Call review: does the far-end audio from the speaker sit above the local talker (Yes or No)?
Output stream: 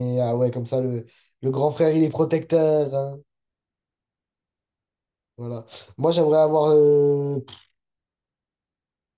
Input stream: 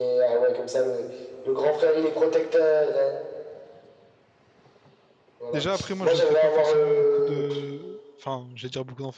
Yes